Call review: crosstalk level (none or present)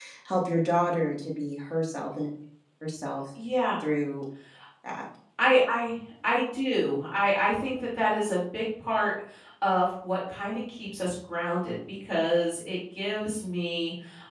none